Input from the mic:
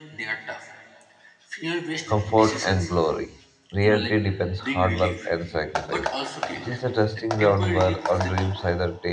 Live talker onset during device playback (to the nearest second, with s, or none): 2 s